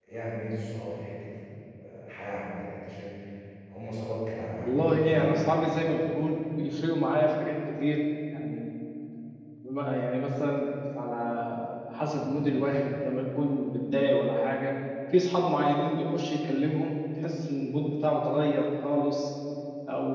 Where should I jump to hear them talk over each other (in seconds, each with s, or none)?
4.6 s